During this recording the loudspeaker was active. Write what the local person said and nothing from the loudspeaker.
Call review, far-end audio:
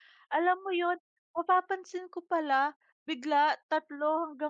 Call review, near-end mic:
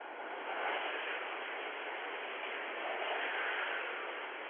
none

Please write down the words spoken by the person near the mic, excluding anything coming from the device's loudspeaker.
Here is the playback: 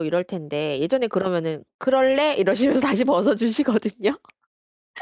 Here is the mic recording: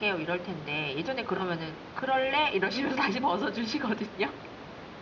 none

